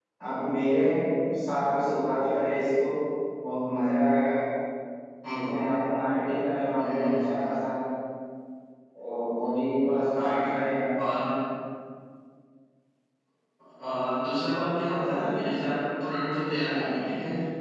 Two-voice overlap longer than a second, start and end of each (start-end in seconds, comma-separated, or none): none